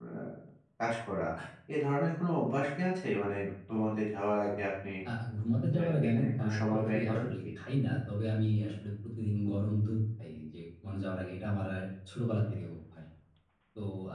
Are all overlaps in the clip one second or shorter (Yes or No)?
No